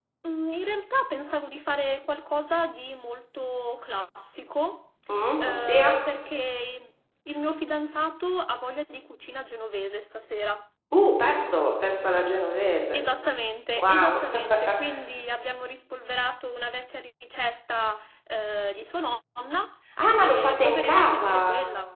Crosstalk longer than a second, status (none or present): present